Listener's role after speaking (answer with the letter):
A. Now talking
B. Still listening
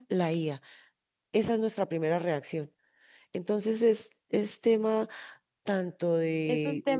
A